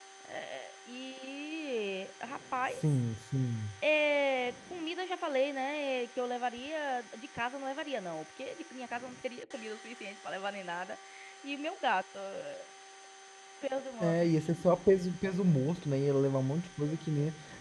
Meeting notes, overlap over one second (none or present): none